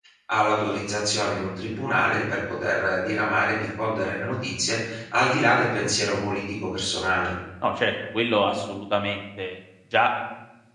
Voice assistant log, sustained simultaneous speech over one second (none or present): none